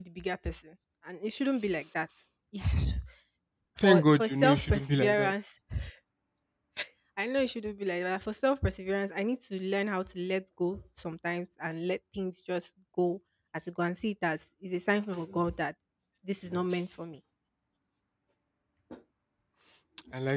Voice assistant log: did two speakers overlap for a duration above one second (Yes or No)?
Yes